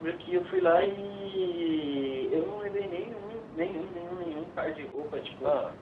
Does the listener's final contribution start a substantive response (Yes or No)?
No